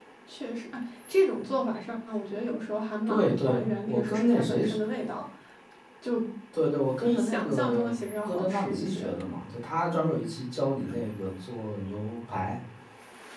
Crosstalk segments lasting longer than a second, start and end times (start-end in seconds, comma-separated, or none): 3.1-4.8, 7.0-9.1